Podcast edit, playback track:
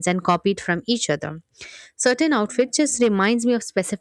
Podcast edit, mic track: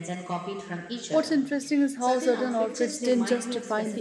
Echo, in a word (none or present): present